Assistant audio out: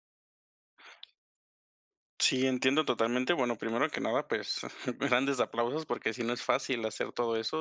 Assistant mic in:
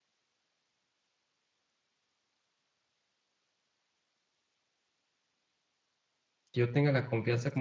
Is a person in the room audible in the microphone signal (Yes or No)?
Yes